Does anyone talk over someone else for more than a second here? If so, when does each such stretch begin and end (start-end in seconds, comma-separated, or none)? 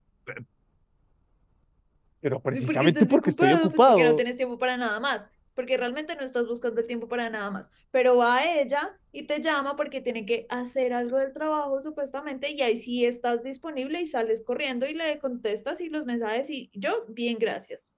2.5-4.2